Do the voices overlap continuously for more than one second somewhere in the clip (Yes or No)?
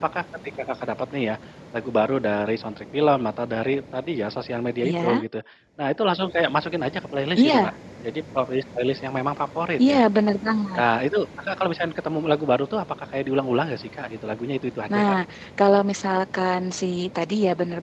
No